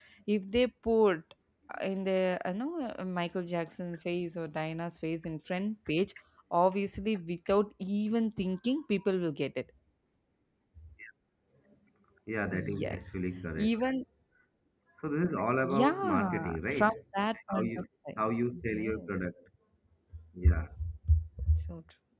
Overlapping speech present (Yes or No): Yes